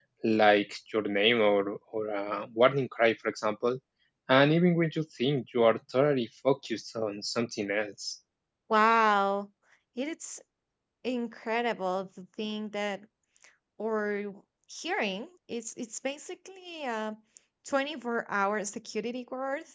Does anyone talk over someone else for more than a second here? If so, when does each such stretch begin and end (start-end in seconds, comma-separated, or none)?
none